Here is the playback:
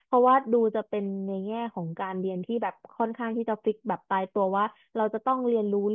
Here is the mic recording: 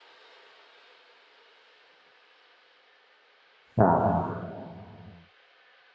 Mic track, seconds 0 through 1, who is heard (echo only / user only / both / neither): neither